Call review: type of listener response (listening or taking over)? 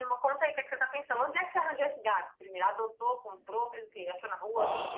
taking over